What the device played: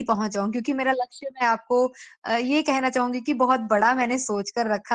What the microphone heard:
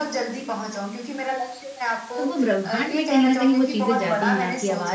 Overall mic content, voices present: both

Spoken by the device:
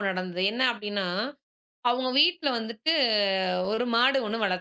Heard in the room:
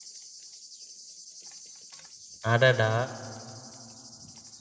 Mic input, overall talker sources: user only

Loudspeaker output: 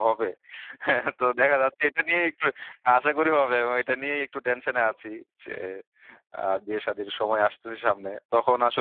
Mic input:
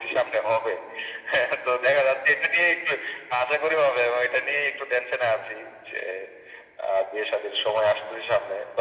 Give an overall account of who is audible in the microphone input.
echo only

